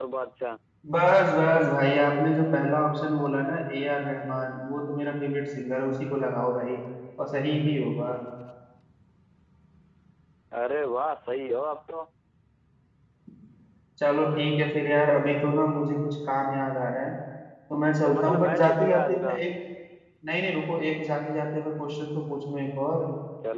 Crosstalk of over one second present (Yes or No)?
Yes